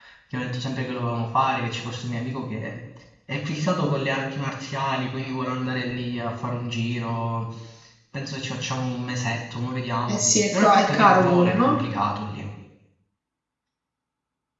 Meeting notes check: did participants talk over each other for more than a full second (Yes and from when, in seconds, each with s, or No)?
Yes, from 10.1 s